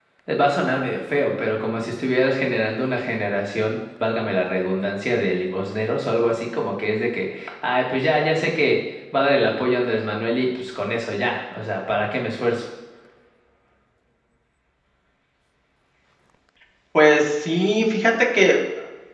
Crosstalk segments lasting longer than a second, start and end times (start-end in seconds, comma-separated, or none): none